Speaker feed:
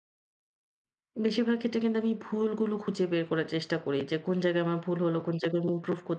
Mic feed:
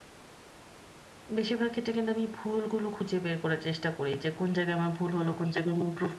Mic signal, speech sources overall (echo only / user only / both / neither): echo only